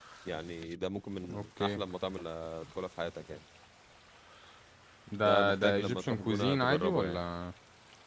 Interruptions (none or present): present